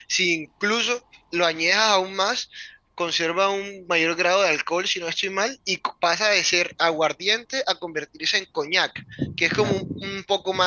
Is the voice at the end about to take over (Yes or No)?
No